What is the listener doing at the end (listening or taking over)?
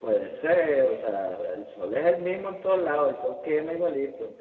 taking over